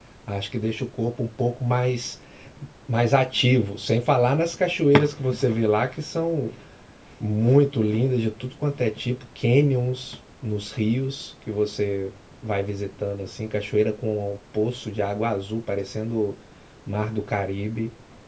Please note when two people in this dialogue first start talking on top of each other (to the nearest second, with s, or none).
none